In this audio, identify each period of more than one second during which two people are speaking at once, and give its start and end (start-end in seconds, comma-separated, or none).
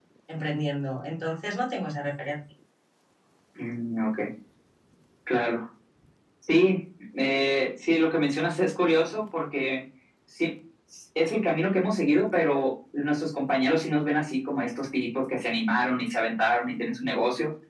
none